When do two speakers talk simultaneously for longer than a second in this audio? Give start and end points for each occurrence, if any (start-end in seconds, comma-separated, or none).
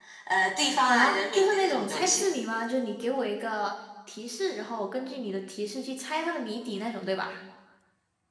0.9-2.3